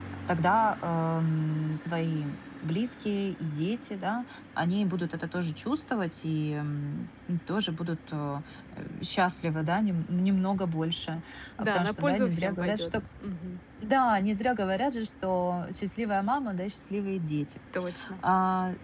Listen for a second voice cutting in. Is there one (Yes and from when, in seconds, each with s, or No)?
Yes, from 11.6 s